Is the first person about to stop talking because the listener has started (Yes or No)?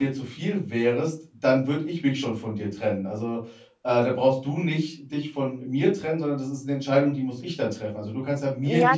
Yes